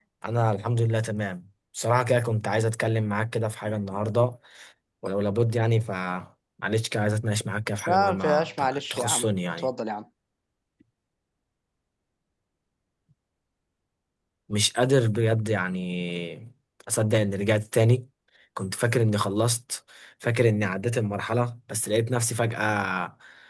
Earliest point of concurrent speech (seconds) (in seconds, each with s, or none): 7.9 s